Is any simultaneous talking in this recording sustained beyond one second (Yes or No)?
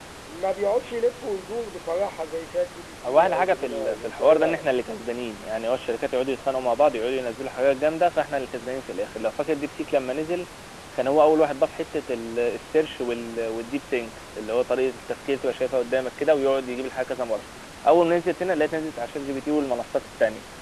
Yes